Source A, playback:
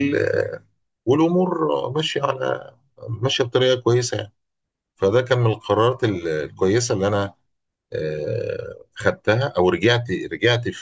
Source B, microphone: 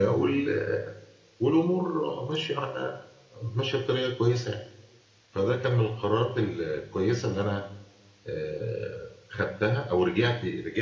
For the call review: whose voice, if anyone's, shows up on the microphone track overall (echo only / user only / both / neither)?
echo only